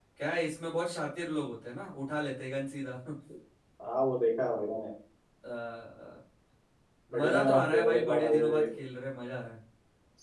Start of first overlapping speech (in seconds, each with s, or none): 7.1 s